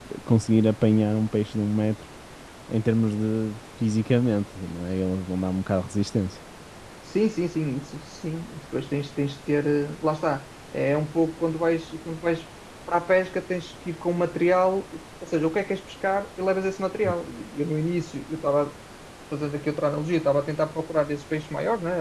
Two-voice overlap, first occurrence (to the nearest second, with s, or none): none